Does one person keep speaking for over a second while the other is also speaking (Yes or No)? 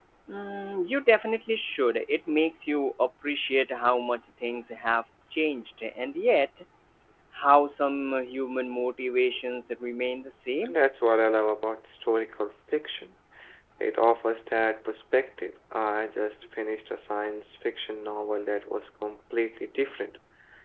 No